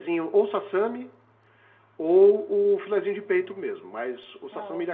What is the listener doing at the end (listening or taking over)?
listening